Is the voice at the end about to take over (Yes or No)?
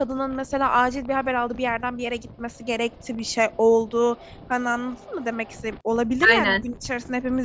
No